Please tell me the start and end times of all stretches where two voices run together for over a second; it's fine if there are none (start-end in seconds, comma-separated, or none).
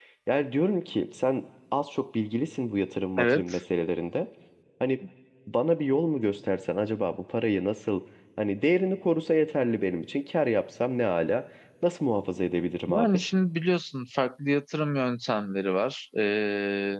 none